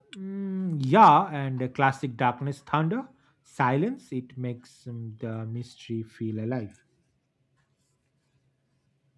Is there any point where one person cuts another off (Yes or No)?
No